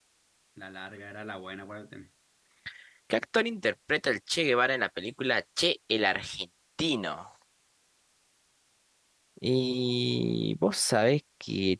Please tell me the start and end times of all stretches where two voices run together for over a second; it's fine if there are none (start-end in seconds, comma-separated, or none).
none